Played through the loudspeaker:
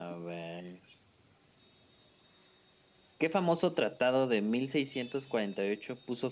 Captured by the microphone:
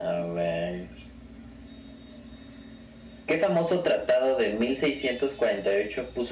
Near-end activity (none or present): none